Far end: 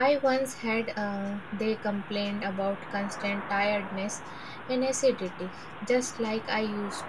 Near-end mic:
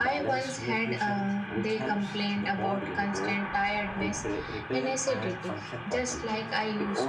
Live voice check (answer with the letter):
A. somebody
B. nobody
A